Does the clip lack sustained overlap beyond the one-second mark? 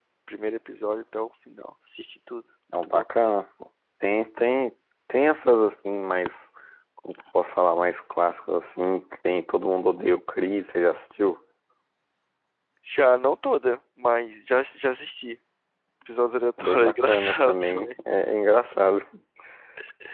No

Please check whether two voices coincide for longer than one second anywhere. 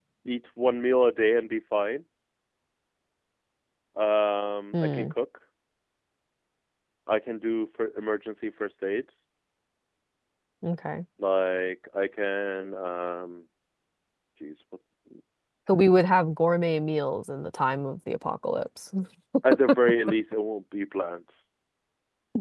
No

